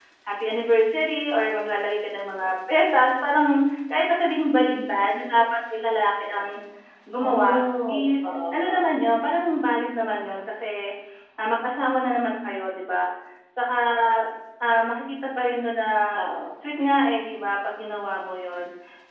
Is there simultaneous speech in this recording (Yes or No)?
Yes